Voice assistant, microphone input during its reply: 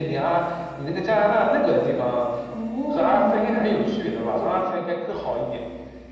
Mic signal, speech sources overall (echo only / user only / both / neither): echo only